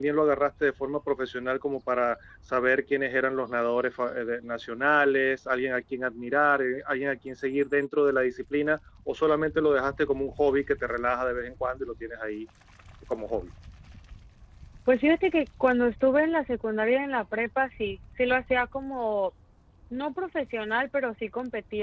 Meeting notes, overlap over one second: none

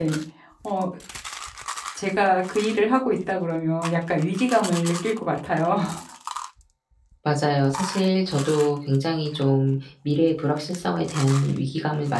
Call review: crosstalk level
none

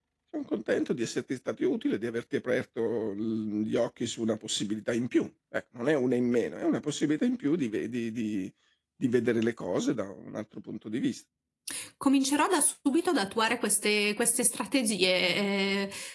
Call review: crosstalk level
none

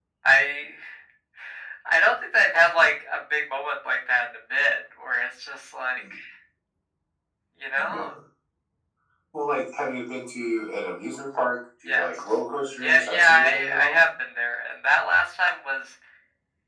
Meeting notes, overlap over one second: present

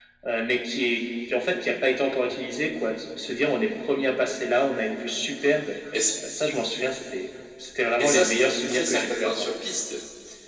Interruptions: present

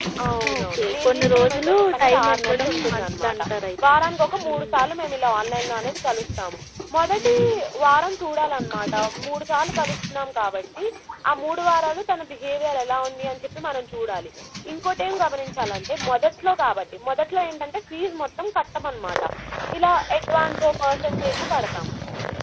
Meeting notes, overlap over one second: present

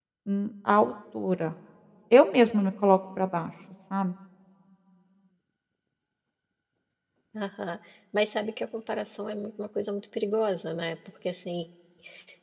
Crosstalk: none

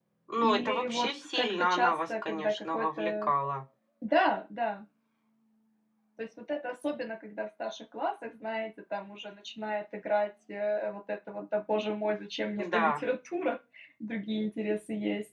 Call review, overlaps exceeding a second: present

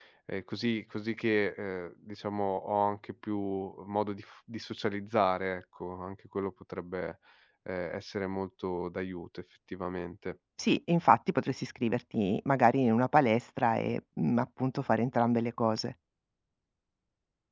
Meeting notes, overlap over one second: none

